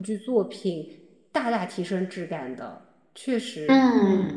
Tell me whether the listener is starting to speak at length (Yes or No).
Yes